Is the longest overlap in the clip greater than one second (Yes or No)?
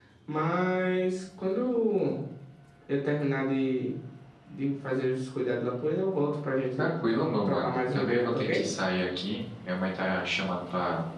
Yes